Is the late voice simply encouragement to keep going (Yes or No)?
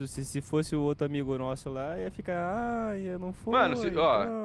No